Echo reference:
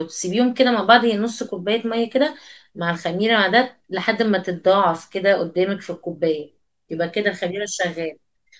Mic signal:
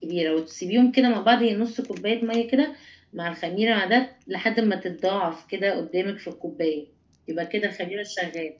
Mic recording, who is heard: echo only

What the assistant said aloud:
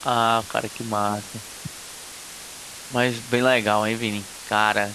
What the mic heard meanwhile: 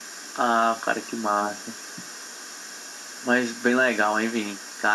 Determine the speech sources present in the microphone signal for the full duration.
echo only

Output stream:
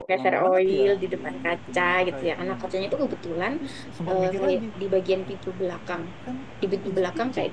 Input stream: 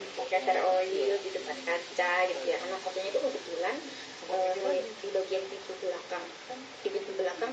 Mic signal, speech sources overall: echo only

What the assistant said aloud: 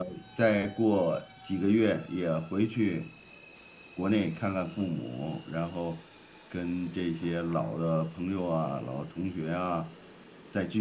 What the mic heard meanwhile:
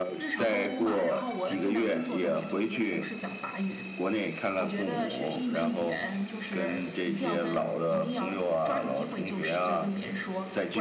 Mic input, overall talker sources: both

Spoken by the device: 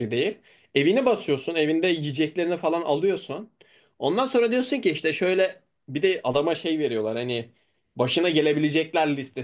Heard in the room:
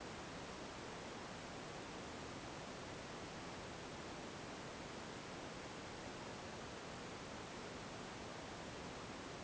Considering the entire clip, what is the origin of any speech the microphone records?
neither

